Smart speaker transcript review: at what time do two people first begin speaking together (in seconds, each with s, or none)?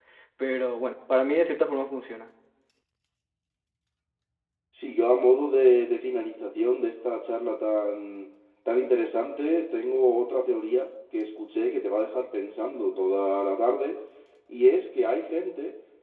none